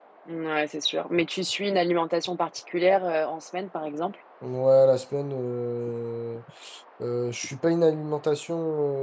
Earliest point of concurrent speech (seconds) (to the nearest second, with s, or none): none